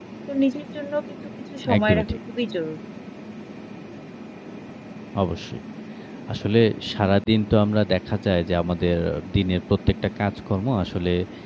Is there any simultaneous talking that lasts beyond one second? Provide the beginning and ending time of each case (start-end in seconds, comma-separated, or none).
none